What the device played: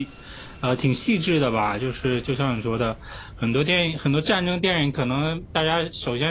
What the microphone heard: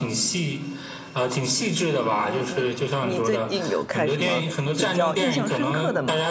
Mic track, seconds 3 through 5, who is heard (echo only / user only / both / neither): both